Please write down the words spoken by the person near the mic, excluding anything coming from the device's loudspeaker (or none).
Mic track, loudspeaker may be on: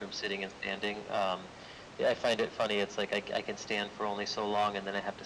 none